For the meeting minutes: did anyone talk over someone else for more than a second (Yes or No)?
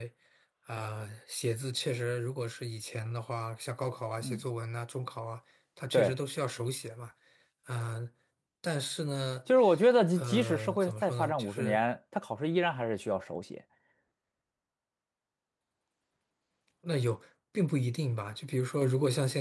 Yes